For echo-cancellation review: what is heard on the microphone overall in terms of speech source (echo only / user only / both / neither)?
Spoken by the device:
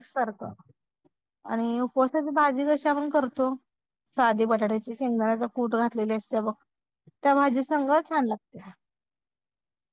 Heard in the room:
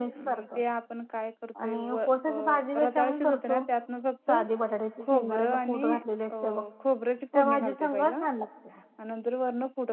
both